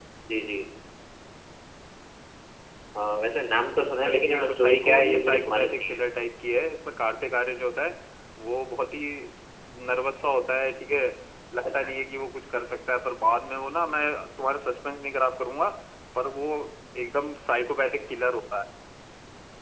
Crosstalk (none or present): present